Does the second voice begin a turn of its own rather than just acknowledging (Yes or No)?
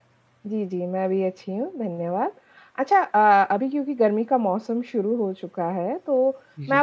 No